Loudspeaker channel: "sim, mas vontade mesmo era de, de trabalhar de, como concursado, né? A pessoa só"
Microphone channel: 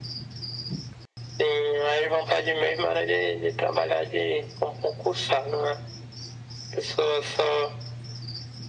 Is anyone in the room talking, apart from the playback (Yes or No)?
No